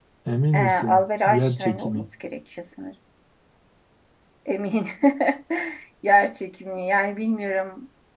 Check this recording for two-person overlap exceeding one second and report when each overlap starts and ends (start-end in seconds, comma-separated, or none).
0.5-2.0